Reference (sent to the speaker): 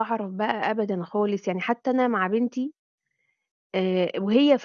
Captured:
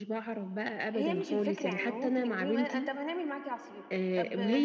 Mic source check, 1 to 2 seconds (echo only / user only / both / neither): both